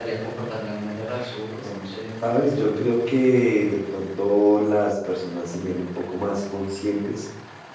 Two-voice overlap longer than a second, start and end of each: none

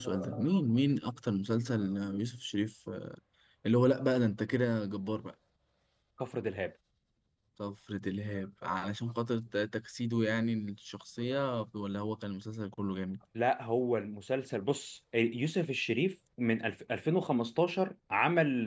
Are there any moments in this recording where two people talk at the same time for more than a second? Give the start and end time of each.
none

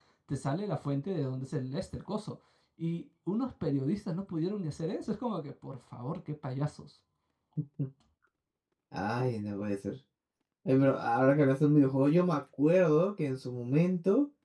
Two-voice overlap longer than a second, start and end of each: none

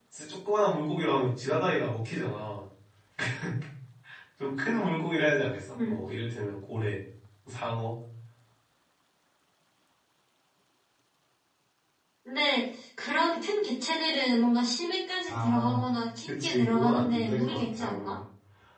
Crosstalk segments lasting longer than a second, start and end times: 16.3-18.2

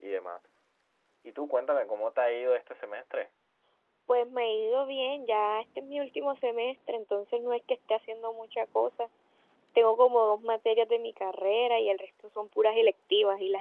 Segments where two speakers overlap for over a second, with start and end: none

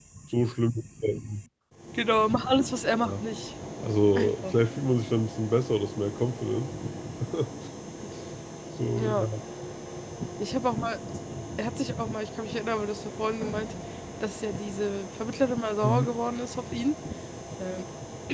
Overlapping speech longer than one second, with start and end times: none

